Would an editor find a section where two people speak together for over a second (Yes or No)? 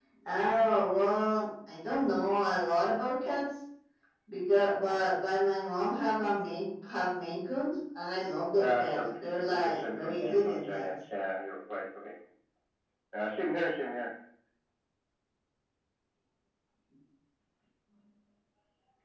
Yes